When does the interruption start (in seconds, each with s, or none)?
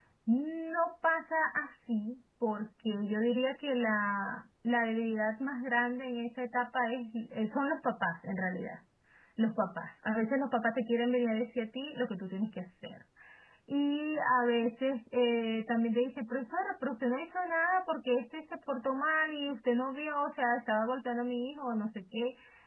none